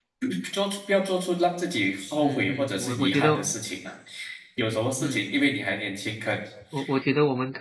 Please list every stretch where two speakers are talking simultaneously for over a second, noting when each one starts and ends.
2.2-3.5

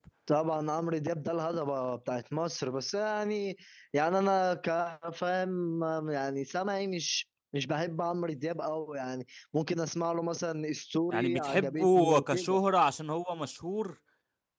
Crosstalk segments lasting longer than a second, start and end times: 11.1-12.6

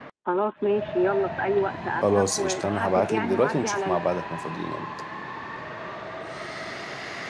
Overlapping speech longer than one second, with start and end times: 2.0-4.0

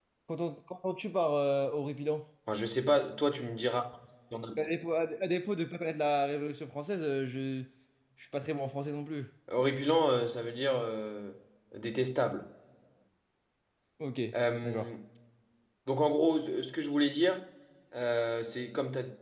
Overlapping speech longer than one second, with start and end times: none

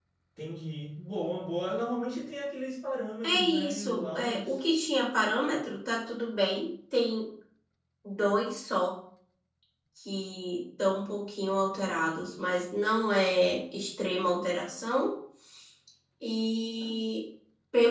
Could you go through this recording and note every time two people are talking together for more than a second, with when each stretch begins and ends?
3.2-4.5

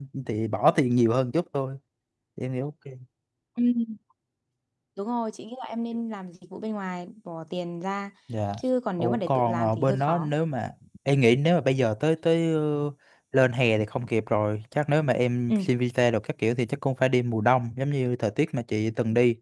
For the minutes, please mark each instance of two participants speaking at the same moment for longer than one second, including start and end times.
9.0-10.3

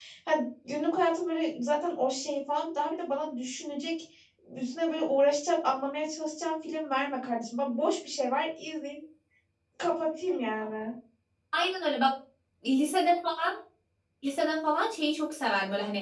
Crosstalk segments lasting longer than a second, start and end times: none

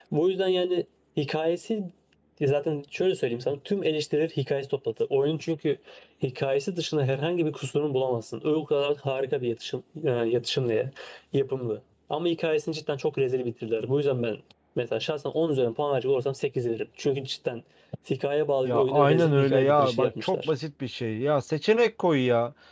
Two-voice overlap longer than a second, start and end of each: 18.6-20.5

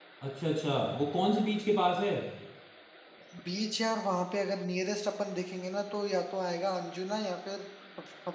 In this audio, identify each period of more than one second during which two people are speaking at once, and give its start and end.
none

